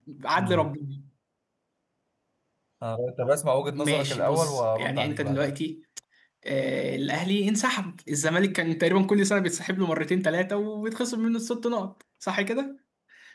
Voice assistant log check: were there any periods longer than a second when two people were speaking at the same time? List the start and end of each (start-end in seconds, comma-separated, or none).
3.8-5.5